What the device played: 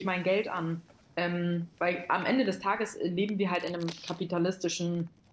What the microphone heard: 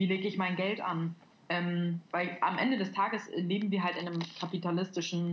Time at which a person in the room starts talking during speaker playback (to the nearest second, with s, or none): none